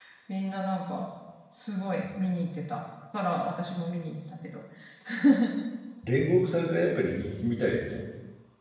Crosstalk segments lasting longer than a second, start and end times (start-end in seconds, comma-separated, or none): none